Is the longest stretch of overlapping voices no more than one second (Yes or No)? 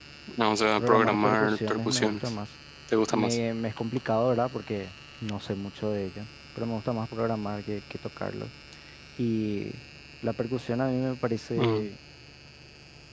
No